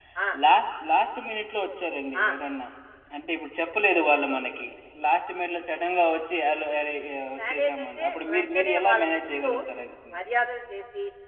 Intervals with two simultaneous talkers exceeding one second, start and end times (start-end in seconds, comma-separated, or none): 7.5-9.5